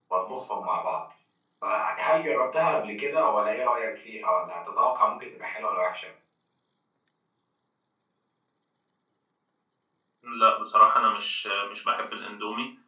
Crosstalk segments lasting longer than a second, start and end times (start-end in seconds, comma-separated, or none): none